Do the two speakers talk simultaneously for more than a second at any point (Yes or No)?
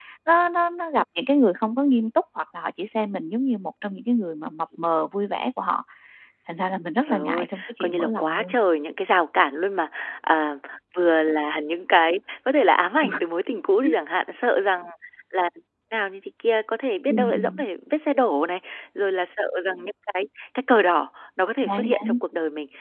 Yes